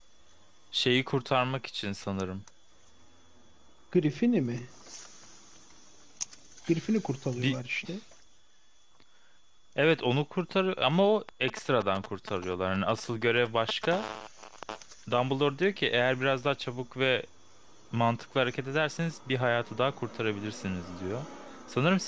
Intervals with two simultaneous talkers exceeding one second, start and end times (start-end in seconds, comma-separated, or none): none